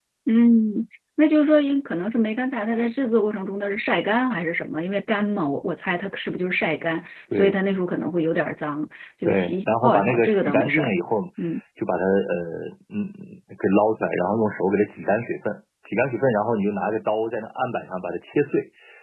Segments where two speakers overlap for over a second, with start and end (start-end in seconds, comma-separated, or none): 9.2-10.9